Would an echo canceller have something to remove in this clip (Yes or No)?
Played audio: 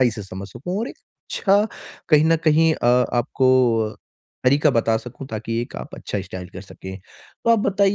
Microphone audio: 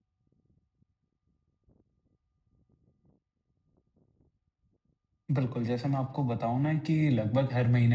No